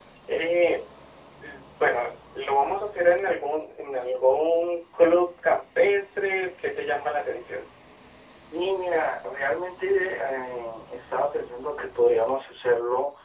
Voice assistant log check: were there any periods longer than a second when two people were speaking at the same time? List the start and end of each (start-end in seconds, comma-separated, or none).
none